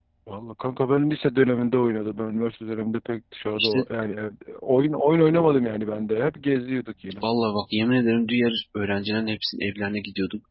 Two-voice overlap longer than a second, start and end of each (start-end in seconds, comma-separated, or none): none